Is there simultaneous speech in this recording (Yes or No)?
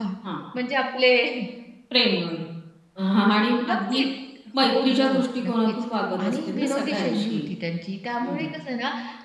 Yes